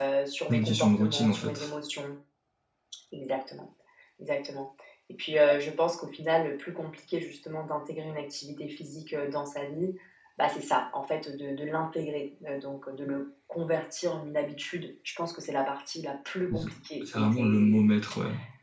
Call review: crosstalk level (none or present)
present